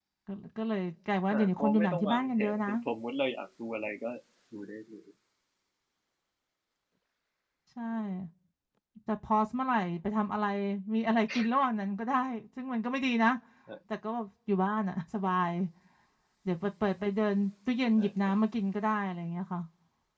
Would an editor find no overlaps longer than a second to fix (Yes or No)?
No